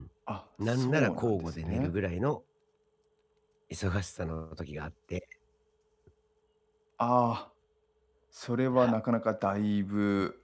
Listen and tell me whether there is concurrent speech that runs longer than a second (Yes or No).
Yes